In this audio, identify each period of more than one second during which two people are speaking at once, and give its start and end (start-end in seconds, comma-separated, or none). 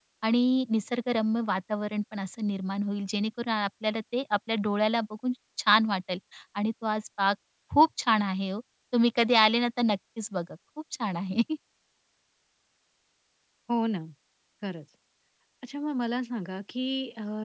none